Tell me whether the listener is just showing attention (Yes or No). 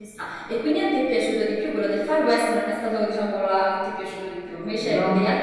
Yes